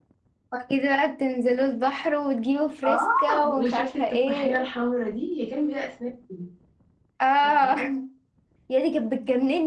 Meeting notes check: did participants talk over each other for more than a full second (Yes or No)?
Yes